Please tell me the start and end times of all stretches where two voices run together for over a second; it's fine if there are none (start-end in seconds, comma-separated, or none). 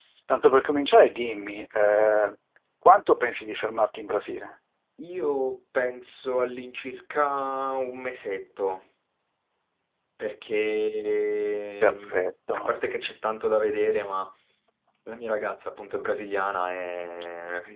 none